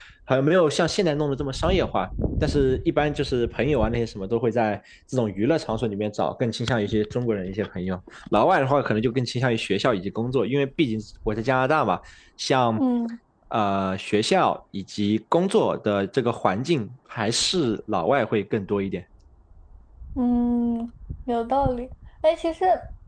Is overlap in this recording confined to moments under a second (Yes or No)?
Yes